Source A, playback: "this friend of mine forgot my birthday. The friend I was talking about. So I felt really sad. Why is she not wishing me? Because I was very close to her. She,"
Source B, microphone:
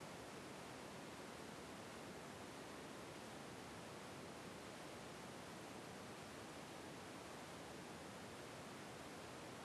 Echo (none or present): none